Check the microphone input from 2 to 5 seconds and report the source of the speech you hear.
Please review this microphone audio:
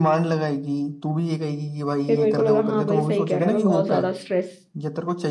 both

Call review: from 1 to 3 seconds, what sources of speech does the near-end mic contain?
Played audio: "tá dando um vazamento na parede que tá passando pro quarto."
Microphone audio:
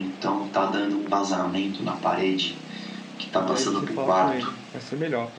echo only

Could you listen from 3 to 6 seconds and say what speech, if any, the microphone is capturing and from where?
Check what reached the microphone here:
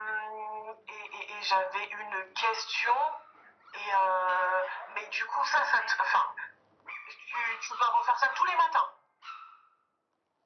echo only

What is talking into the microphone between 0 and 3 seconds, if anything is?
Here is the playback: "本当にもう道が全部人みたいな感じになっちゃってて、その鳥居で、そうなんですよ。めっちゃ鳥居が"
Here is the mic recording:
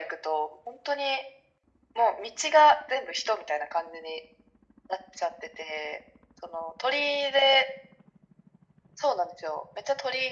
echo only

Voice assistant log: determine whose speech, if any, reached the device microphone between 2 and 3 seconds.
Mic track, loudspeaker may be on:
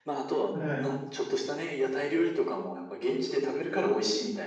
echo only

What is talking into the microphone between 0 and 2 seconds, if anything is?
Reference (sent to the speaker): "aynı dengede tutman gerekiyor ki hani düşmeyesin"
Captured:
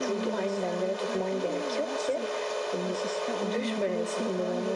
both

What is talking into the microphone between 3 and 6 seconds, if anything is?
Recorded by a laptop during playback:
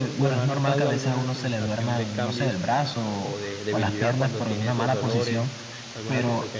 both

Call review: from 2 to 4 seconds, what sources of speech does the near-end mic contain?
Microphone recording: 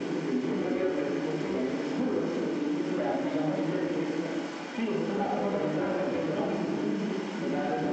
echo only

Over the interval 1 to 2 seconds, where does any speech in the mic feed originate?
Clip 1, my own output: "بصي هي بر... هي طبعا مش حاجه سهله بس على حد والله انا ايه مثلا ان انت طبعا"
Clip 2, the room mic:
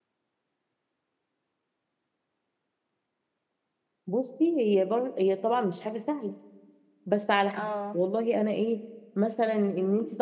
neither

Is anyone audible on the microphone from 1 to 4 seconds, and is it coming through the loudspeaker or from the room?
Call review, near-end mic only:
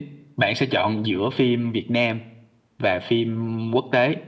echo only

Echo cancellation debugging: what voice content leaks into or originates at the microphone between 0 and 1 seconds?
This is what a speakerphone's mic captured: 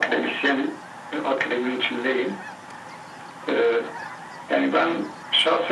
echo only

